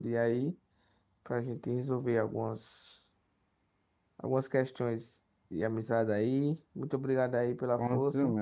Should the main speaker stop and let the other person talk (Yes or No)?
Yes